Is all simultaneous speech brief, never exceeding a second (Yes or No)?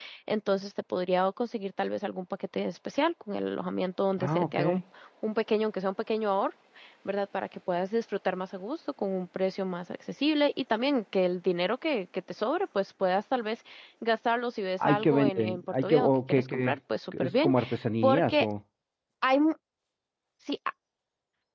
No